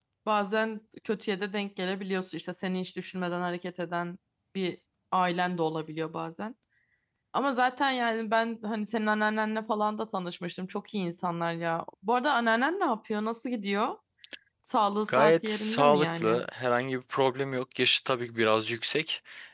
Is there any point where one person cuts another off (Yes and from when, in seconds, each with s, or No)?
Yes, from 15.1 s